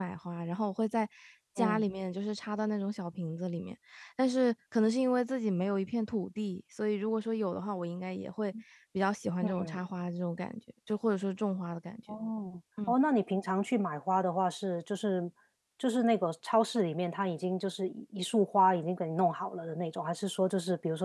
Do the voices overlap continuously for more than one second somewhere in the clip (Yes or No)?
No